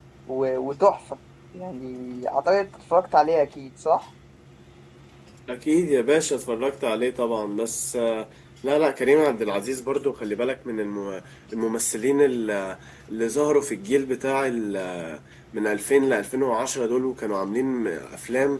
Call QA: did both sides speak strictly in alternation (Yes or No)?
Yes